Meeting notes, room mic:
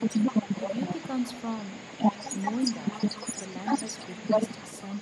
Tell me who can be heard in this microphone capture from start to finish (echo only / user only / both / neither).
both